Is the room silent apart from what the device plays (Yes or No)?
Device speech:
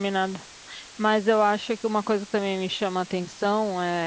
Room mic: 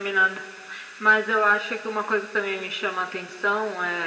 Yes